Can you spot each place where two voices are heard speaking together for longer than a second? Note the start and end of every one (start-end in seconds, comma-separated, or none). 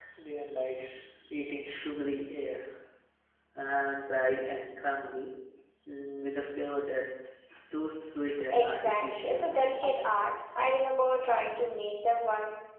8.5-10.2